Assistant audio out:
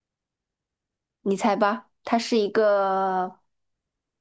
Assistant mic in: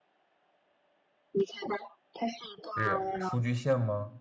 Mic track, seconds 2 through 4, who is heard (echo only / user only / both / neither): both